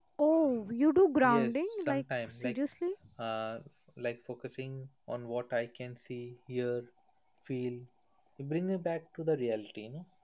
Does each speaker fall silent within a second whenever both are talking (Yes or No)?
No